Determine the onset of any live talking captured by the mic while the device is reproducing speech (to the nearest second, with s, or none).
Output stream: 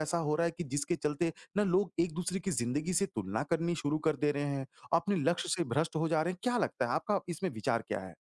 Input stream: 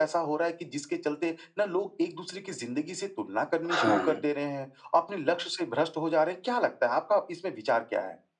4 s